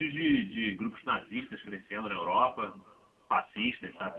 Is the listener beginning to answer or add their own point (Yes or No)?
Yes